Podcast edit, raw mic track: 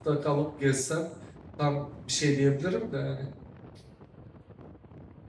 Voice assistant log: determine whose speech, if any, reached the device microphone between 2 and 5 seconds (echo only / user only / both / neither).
user only